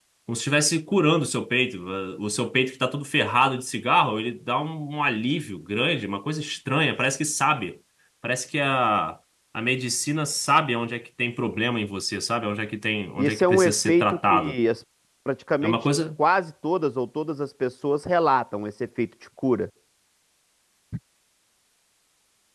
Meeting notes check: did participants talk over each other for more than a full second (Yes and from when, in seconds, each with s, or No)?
Yes, from 13.2 s